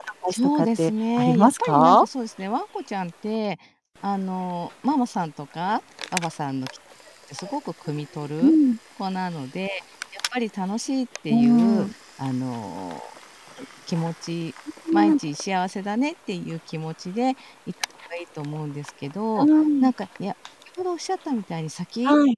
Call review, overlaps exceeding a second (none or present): present